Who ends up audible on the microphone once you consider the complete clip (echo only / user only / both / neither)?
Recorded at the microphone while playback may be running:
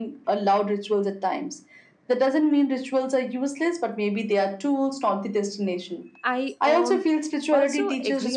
both